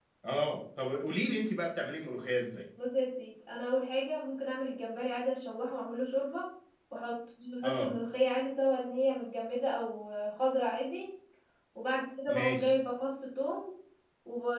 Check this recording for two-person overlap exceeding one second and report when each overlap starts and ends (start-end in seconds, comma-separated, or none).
none